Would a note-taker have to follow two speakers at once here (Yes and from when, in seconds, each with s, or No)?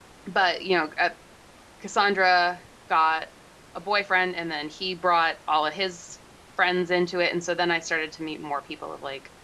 No